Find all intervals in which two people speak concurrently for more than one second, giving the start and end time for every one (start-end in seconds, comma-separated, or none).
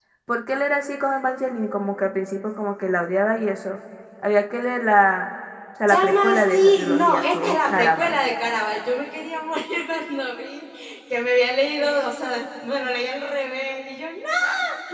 5.9-8.2